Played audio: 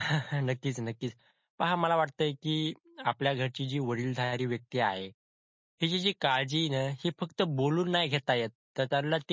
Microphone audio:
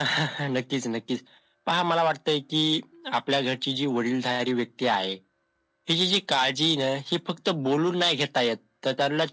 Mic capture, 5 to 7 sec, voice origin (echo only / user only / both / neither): echo only